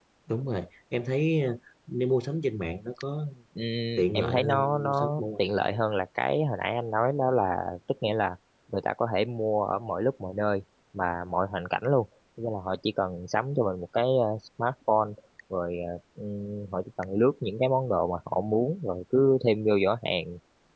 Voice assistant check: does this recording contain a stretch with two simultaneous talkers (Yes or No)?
Yes